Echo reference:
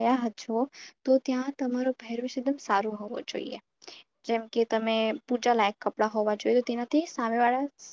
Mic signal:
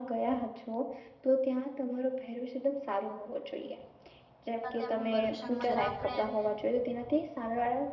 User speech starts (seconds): 4.7 s

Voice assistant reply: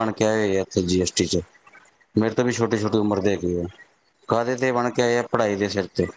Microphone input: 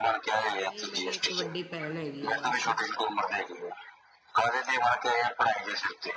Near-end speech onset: 0.6 s

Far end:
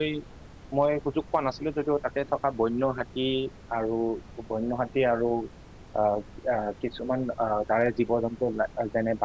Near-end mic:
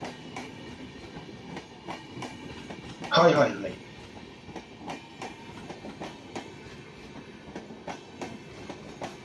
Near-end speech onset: 3.1 s

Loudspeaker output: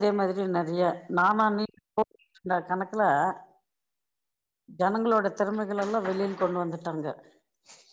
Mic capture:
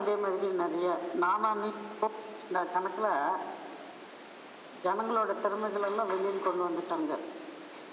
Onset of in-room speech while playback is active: none

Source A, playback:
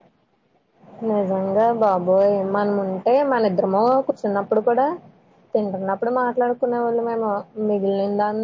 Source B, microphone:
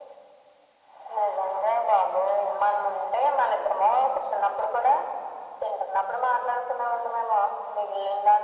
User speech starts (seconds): none

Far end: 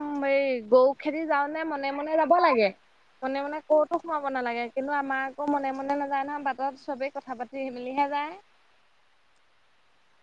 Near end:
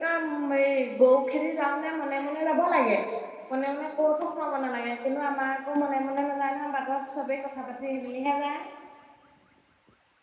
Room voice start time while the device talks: none

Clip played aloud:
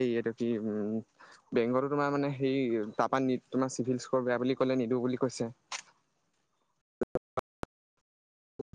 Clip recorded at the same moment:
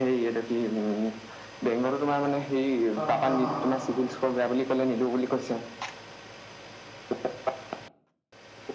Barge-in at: 3.0 s

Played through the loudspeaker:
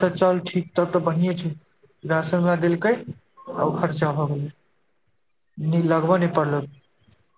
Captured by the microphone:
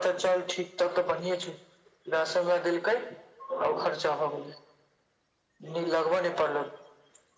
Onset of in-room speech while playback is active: none

